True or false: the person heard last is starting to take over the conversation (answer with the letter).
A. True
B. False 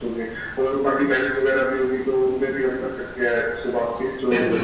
A